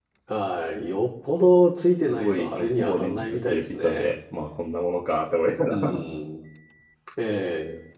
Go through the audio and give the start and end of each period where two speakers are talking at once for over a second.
2.1-4.1

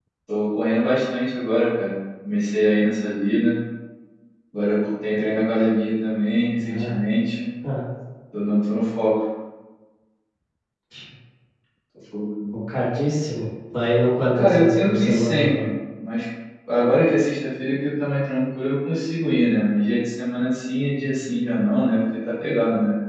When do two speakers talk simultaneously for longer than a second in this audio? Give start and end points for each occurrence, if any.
14.4-15.7

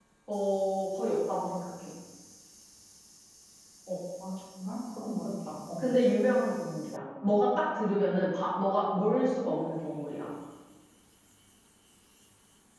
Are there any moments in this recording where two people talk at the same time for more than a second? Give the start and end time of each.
none

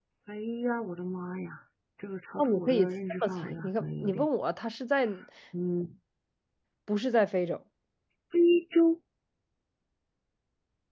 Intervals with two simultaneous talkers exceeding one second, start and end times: 2.4-4.3

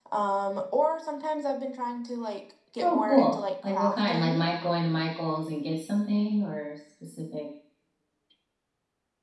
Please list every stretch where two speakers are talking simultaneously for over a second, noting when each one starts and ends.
2.8-4.4

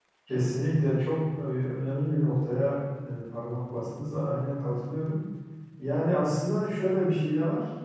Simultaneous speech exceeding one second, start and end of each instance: none

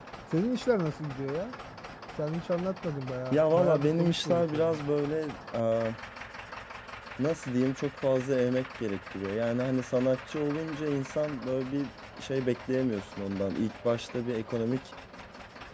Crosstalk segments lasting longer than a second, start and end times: 3.3-4.8

